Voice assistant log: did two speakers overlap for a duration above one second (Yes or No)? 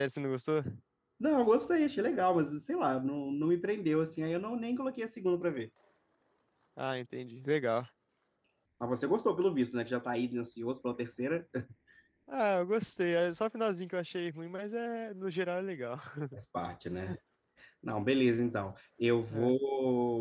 No